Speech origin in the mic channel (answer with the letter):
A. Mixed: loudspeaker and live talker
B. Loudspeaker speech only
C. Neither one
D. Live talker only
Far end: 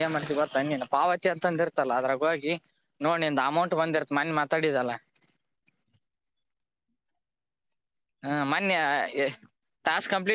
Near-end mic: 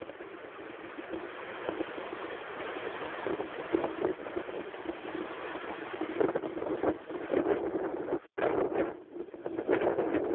C